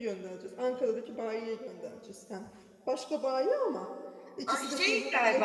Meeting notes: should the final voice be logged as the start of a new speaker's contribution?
Yes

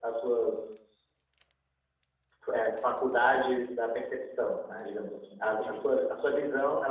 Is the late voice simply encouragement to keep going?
Yes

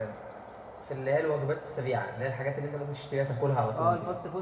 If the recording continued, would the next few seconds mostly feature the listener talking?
Yes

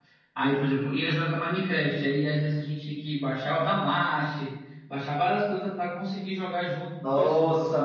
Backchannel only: No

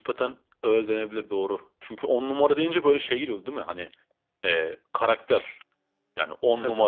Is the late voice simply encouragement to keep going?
Yes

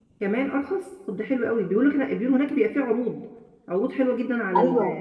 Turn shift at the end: Yes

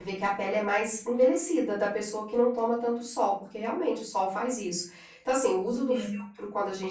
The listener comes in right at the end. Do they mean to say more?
No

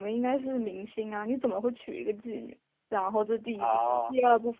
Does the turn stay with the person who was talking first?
Yes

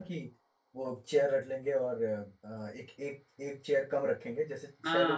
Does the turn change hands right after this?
No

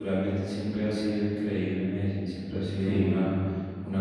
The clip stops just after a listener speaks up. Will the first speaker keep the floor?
Yes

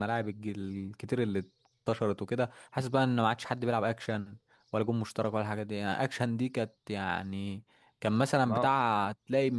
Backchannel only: Yes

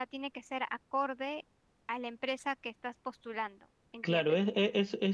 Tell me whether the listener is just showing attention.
No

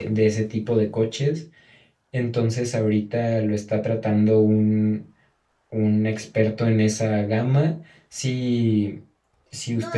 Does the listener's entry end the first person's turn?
Yes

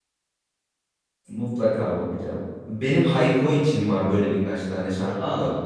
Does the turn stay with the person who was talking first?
Yes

